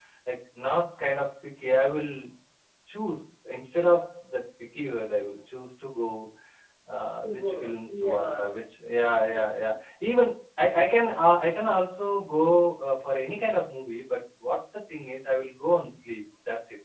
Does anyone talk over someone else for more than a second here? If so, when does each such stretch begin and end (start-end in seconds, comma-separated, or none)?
7.2-8.5